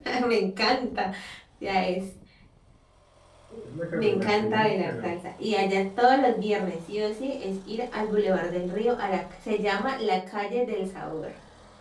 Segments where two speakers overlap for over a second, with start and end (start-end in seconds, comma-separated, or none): 3.9-5.1